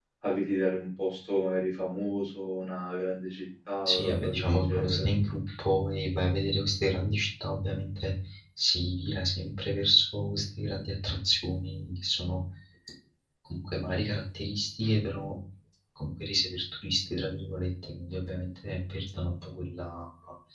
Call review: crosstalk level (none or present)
present